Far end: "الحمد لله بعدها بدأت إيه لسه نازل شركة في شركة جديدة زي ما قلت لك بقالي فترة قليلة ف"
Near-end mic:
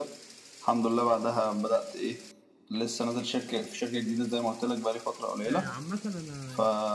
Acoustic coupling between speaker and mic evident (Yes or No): Yes